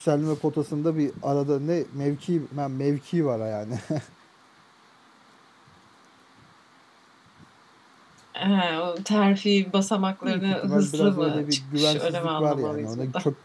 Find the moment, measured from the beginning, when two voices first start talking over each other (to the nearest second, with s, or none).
10 s